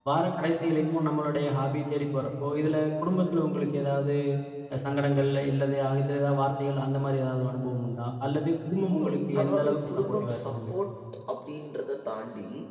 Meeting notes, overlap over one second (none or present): present